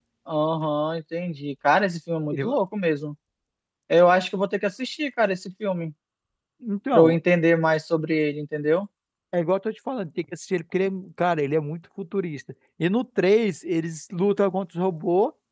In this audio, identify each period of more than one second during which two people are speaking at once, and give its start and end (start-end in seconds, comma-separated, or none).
none